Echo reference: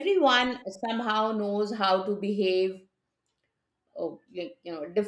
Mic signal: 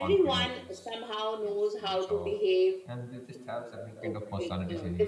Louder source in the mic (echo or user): echo